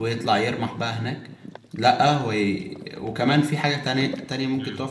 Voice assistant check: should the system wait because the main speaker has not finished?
No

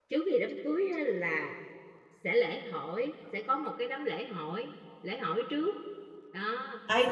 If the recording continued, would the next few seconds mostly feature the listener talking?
Yes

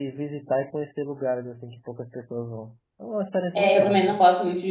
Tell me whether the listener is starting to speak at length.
Yes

